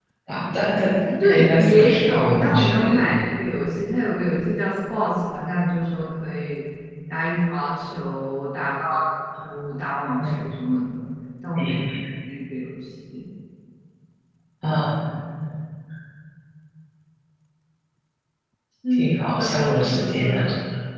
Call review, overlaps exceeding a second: present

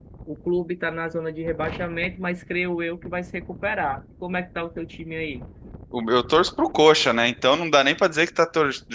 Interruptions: none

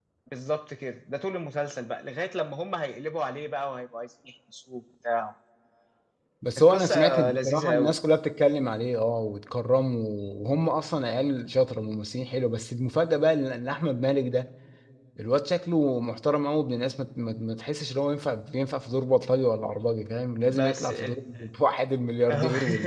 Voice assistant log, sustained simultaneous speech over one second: present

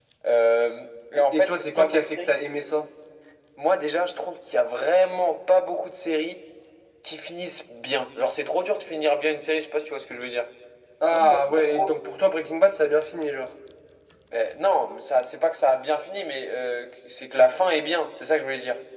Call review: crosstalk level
present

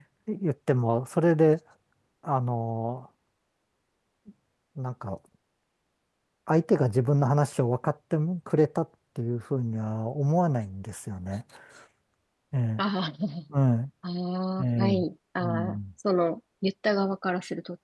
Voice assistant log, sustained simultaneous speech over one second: none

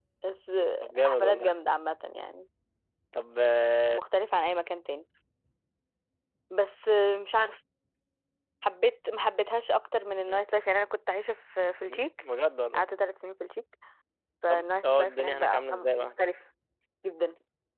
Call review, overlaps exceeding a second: present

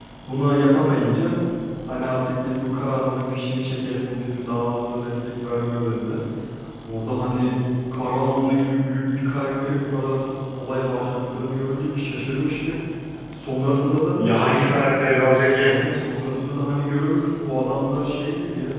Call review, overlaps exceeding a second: none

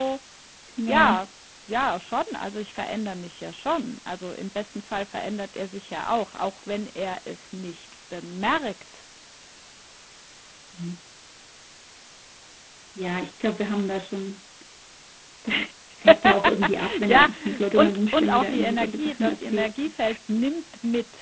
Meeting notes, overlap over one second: present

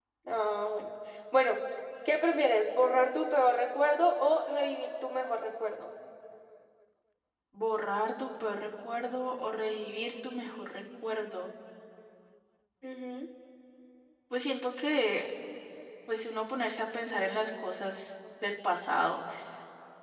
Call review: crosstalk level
none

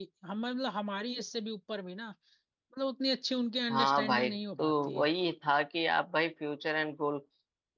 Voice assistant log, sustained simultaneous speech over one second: present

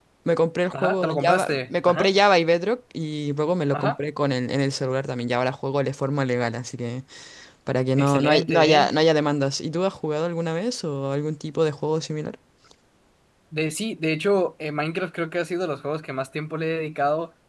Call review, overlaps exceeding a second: present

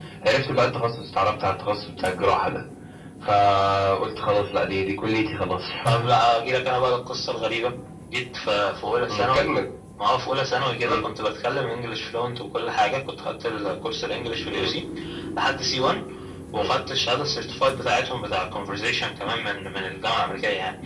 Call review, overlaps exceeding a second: none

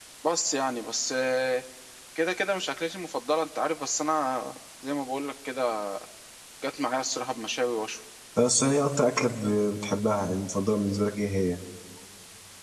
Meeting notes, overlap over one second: none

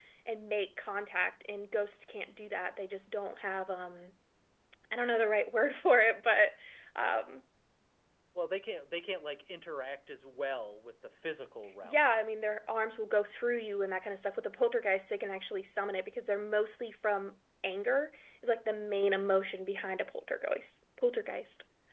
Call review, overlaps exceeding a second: none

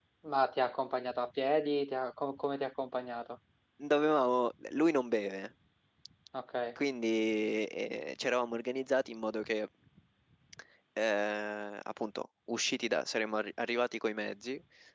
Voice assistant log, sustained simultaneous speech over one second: none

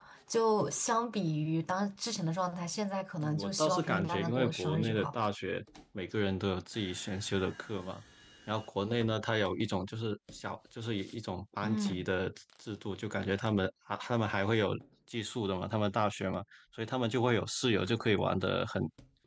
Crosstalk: present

